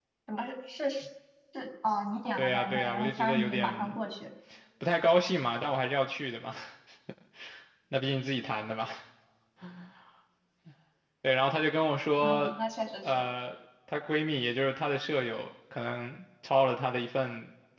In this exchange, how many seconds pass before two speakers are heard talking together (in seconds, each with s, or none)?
2.4 s